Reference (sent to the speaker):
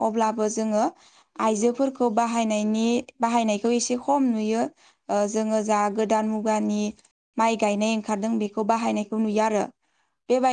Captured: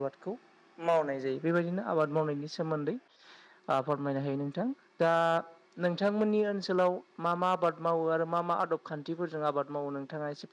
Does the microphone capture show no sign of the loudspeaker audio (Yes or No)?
Yes